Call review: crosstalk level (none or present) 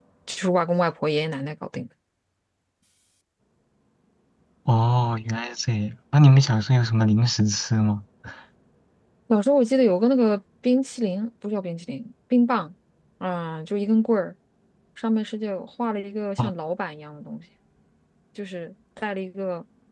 none